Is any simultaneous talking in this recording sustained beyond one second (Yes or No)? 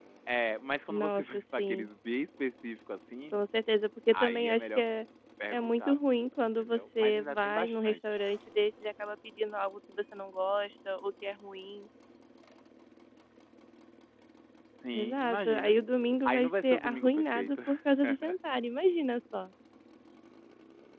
Yes